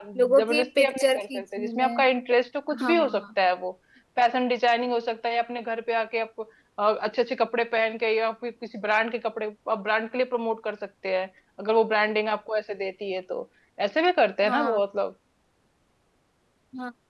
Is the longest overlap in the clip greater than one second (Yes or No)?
Yes